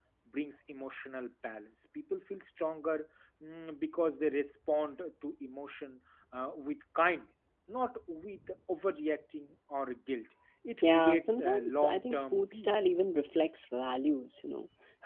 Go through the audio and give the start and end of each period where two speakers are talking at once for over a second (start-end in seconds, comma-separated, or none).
10.8-12.8